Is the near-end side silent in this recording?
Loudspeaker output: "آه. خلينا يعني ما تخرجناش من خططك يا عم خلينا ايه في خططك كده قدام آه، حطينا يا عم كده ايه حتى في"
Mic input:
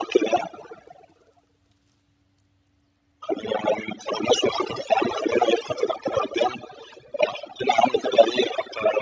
Yes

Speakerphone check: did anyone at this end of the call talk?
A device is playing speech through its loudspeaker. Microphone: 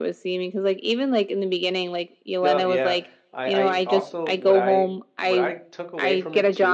Yes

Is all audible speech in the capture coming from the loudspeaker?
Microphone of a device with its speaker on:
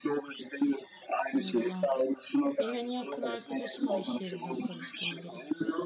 No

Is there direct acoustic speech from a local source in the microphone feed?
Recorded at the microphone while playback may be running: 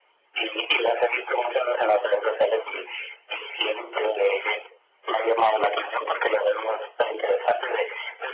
No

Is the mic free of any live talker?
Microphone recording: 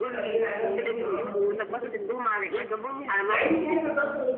No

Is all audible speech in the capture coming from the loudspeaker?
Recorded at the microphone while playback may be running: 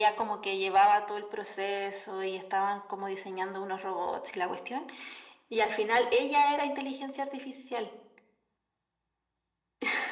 Yes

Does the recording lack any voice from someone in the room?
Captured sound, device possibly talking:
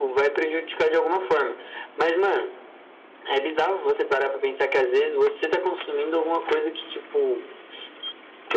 Yes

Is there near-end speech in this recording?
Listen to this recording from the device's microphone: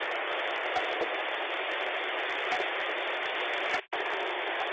No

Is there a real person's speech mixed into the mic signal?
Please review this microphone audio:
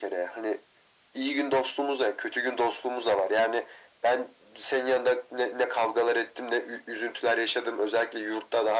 No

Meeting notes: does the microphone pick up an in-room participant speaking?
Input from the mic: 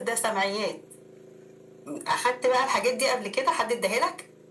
No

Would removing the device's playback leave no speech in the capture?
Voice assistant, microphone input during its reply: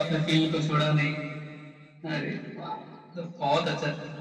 Yes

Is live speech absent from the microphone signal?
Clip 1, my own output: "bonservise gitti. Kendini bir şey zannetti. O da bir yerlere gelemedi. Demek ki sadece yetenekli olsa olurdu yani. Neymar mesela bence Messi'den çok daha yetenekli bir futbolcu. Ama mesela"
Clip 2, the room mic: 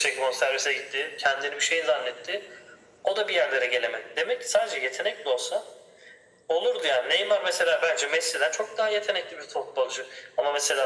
Yes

